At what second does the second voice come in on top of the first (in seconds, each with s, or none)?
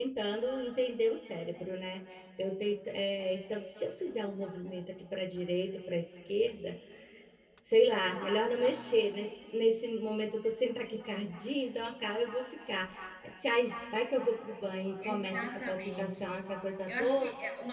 15.0 s